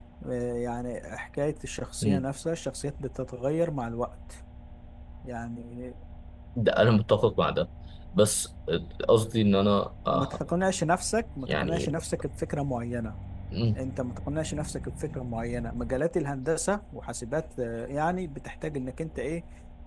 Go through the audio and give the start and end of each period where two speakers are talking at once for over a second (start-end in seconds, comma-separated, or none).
none